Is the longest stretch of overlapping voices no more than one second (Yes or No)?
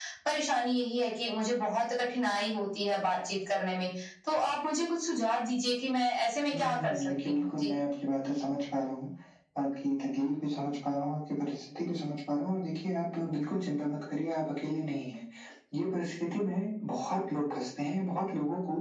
No